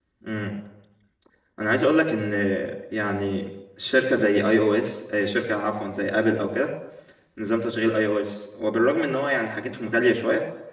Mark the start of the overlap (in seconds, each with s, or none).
none